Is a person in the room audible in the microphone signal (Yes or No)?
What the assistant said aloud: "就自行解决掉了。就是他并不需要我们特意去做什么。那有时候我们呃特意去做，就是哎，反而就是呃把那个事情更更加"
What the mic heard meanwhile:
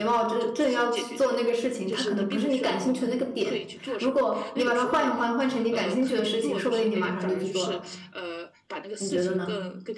Yes